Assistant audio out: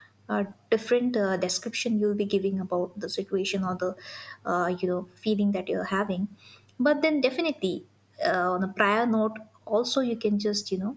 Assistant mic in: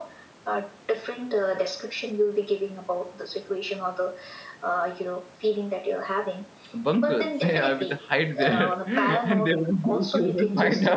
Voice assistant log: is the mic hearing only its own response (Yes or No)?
No